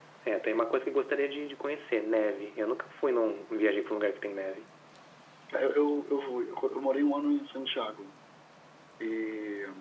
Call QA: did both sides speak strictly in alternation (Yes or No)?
Yes